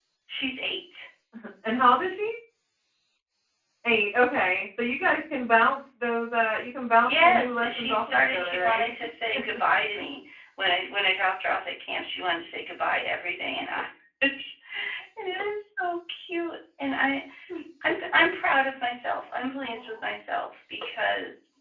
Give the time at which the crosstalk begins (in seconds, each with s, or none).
7.0 s